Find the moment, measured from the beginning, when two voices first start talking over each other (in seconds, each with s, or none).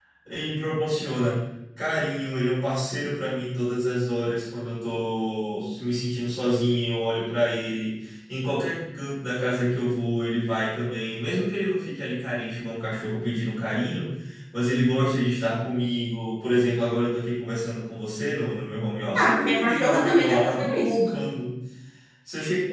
19.2 s